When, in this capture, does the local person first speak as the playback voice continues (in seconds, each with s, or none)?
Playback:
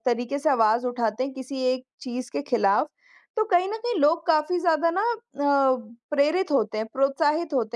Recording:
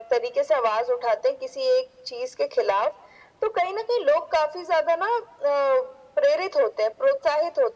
none